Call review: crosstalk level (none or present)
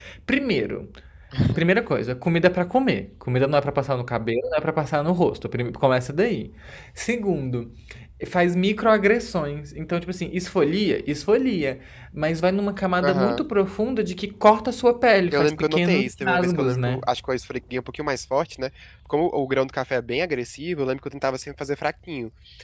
present